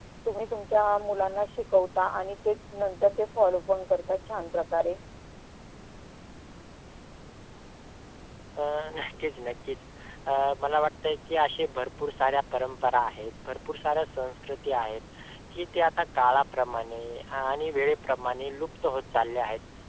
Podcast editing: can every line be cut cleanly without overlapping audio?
Yes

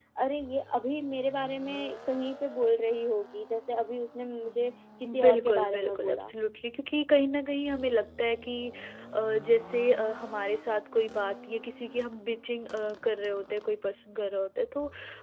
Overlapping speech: Yes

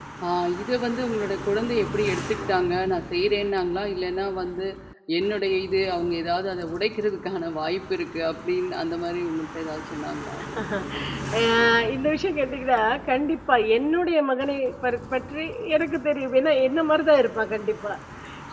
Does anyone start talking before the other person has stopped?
No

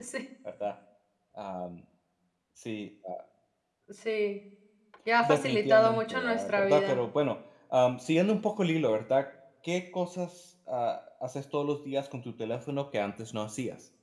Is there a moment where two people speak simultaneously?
Yes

